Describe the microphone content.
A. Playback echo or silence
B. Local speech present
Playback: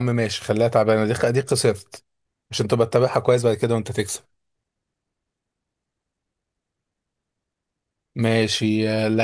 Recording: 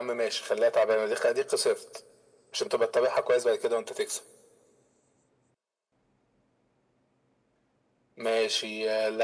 A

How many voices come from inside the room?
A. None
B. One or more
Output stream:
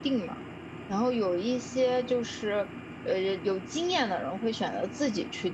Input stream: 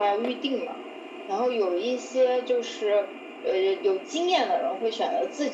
A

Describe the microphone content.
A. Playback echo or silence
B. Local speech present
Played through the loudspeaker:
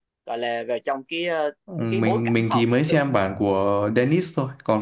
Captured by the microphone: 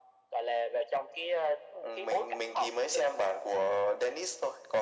A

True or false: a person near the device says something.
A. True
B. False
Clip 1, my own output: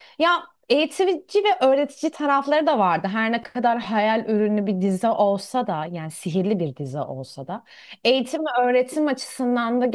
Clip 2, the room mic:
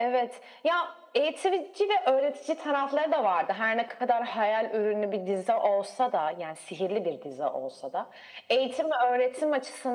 B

